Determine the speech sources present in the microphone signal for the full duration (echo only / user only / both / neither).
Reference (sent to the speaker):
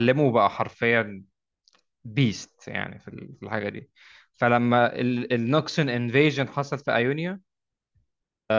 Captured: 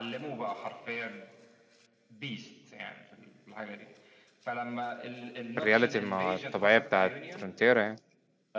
both